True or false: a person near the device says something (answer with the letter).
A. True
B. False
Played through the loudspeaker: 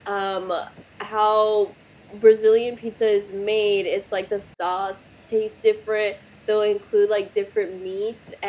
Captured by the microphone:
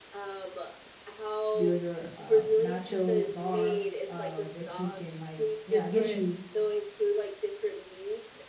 A